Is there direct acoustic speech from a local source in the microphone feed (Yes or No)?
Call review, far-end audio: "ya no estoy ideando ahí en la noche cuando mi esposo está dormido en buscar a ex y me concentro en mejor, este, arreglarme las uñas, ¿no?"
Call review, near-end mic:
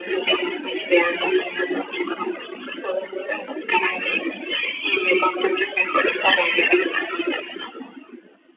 No